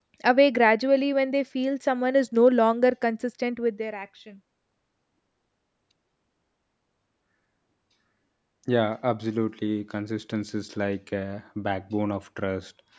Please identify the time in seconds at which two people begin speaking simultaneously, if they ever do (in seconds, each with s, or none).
none